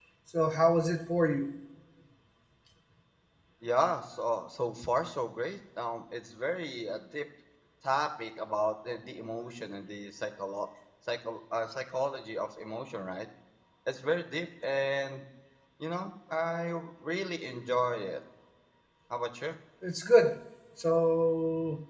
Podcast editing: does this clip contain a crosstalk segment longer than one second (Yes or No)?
No